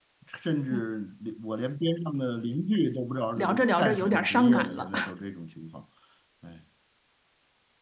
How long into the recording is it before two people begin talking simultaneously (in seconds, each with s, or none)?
3.4 s